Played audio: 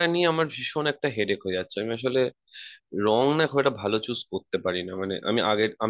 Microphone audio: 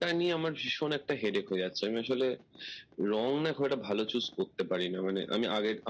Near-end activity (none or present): none